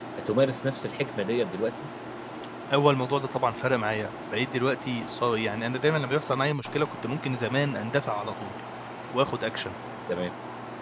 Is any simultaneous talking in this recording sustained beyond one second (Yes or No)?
No